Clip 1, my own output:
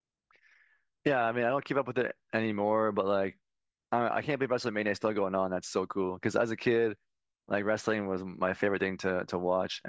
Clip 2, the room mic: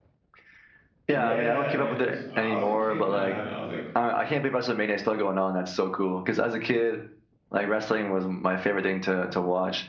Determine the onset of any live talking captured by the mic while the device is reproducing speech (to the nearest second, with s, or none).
1 s